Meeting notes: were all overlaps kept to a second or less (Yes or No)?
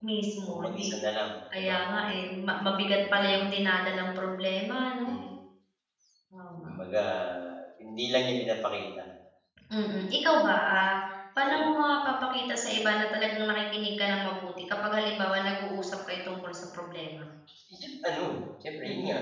Yes